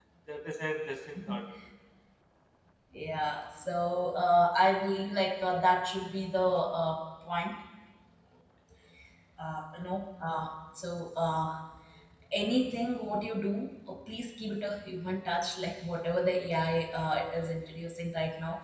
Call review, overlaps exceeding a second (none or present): none